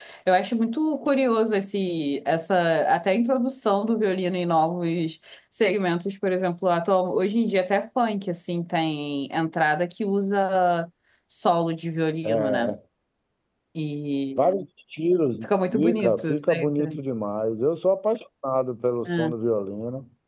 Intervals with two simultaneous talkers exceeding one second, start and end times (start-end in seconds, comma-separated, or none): 15.4-17.0